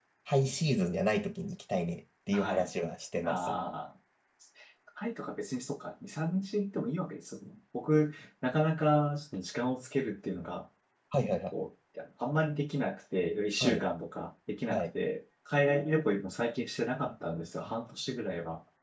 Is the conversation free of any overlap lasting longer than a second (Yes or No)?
Yes